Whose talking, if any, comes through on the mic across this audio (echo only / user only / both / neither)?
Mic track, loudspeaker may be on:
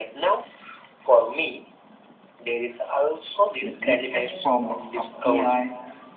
both